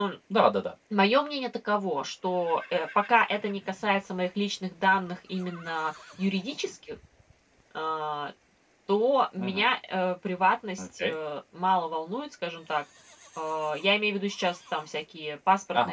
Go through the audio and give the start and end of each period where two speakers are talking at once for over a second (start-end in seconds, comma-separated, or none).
none